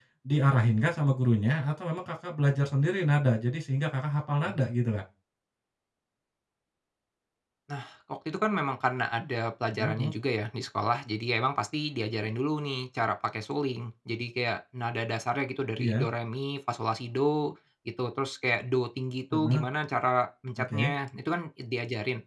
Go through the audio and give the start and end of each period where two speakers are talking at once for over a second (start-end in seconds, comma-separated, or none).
none